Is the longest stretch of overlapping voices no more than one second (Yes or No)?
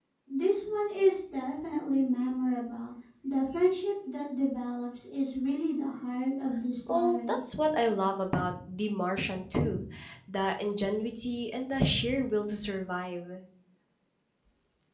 Yes